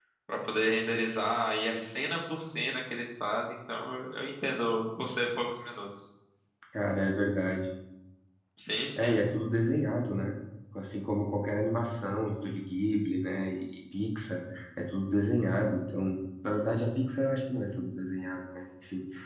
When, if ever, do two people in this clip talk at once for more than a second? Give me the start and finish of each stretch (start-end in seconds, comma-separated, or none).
none